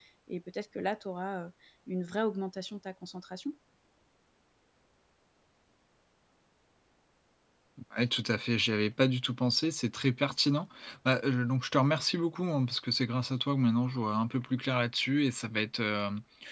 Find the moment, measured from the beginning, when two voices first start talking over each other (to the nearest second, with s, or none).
none